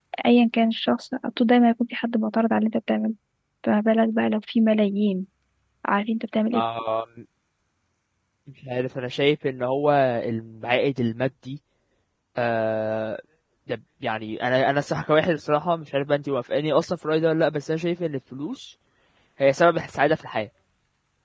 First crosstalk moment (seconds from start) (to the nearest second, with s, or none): none